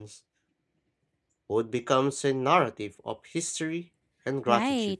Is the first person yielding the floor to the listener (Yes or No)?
Yes